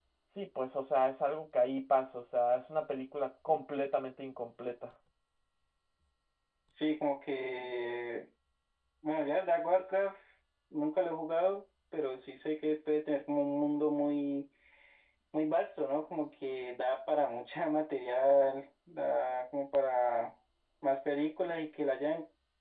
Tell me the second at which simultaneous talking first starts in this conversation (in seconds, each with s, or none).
none